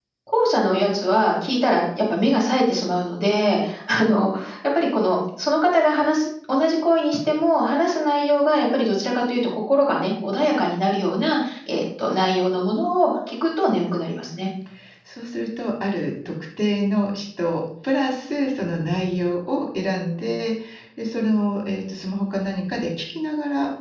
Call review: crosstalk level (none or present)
none